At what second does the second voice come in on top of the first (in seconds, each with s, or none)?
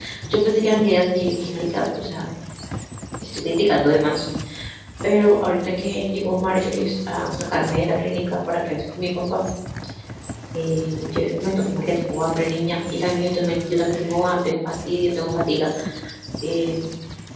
none